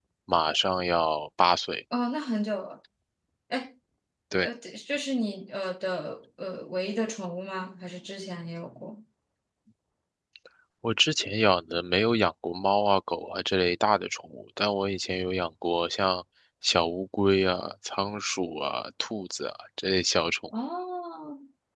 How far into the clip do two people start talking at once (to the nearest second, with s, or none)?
none